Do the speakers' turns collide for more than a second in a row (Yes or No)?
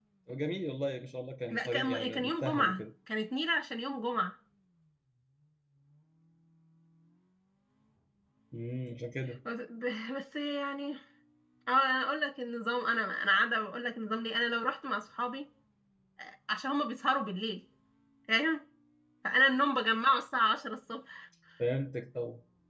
Yes